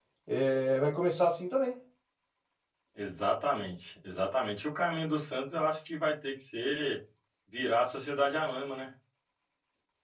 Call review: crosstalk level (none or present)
none